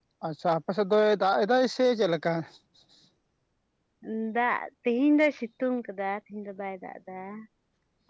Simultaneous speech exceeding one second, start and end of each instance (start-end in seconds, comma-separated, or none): none